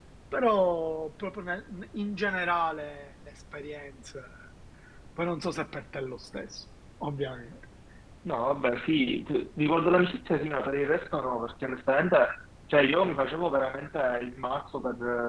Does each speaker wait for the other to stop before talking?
Yes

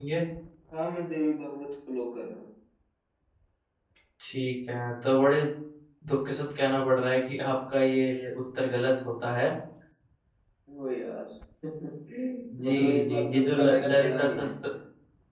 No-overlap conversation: No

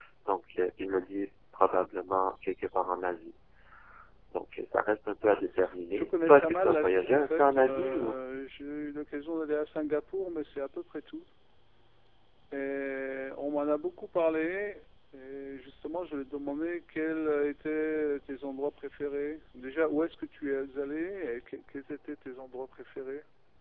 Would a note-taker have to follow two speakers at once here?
Yes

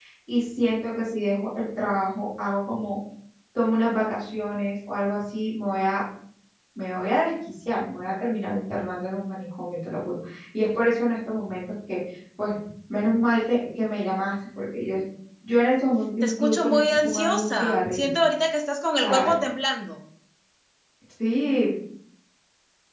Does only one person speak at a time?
No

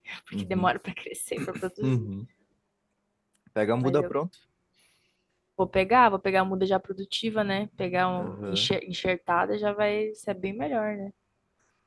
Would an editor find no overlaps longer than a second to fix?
Yes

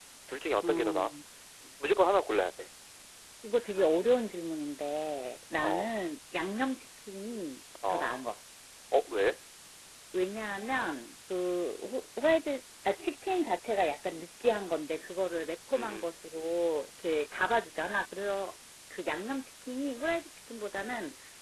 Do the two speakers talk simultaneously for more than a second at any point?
No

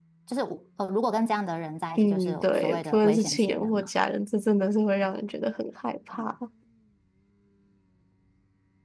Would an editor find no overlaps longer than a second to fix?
No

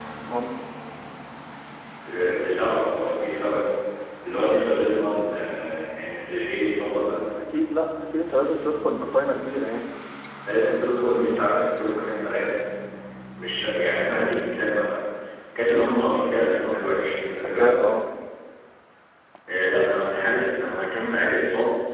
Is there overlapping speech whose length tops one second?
No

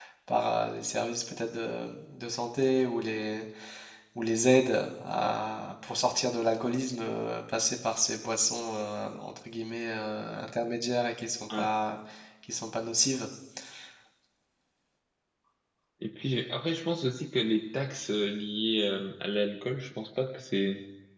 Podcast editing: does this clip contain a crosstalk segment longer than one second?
No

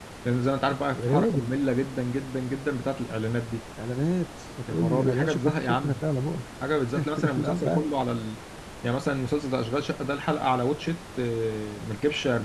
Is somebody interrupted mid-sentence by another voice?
Yes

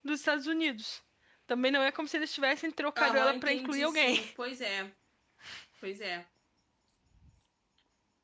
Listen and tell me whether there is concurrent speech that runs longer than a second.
Yes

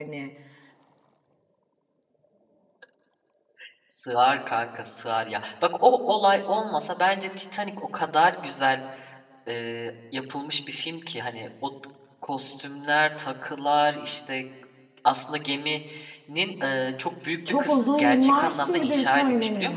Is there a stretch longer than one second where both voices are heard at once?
Yes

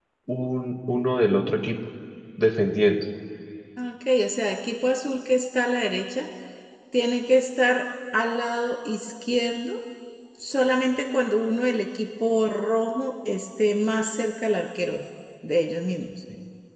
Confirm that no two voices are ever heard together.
Yes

